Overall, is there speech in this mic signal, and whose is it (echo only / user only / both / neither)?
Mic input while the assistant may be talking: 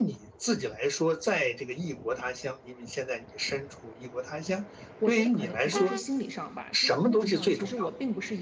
both